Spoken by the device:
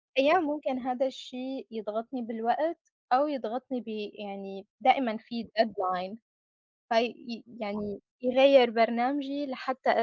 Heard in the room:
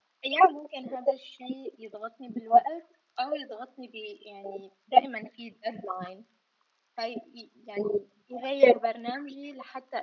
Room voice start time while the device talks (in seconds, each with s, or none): none